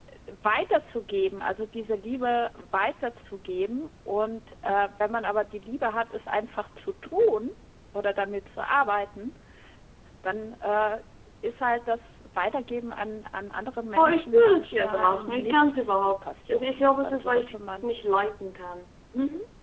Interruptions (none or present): present